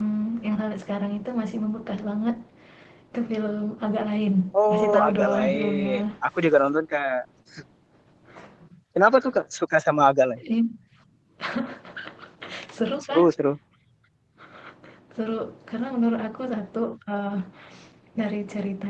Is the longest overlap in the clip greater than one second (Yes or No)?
Yes